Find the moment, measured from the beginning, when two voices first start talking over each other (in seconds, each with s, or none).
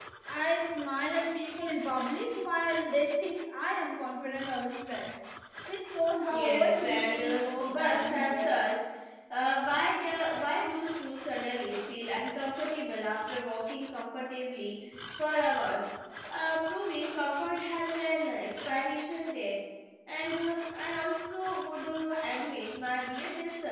6.3 s